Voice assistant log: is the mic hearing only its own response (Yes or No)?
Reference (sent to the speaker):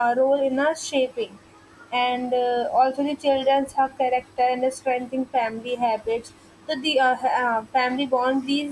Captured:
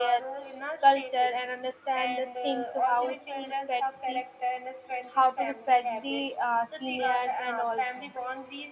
No